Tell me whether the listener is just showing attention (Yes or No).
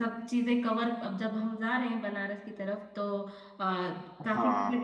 Yes